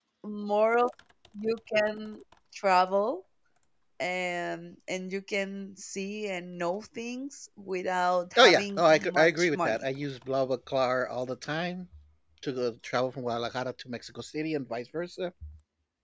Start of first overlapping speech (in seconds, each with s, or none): 8.4 s